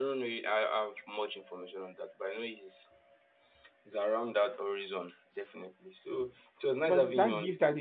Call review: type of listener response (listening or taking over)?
taking over